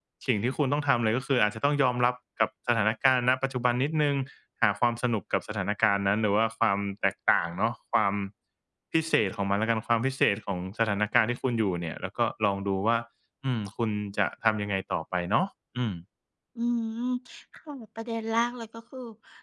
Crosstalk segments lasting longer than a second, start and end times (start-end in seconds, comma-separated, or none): none